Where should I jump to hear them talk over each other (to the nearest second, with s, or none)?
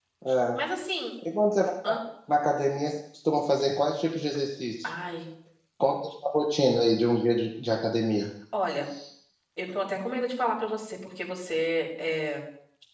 none